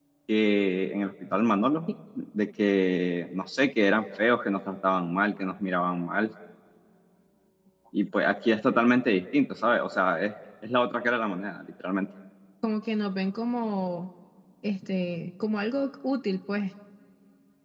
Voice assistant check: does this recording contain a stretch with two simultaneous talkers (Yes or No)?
No